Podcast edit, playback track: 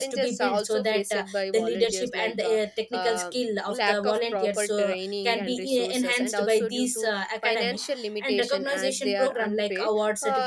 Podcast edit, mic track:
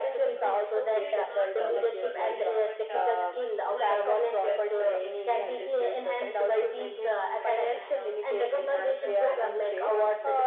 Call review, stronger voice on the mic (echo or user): echo